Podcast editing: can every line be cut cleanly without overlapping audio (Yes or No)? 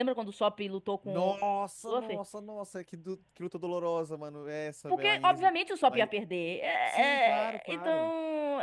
No